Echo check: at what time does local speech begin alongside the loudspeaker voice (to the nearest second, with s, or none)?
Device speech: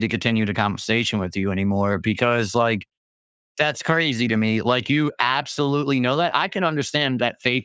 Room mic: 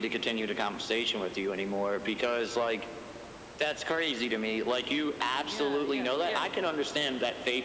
5 s